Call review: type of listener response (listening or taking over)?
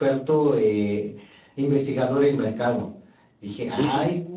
taking over